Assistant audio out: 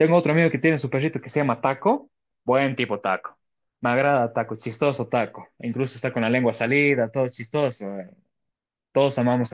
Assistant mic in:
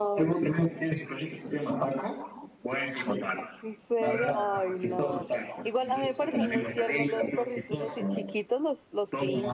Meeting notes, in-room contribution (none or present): present